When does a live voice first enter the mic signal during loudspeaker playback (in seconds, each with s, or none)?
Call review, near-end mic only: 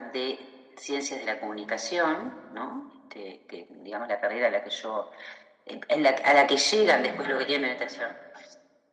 none